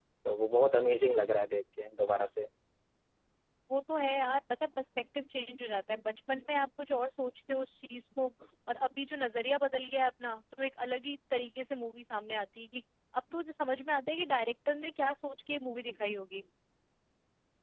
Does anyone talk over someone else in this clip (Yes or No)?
No